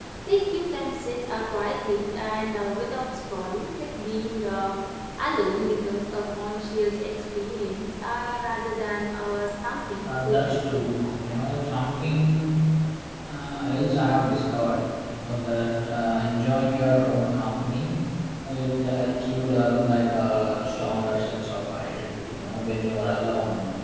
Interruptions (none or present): present